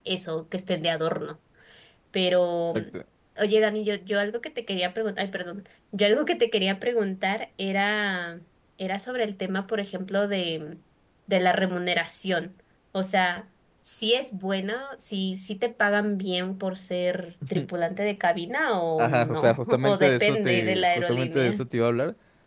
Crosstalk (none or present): present